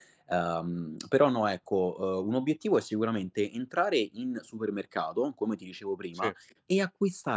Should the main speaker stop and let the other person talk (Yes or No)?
No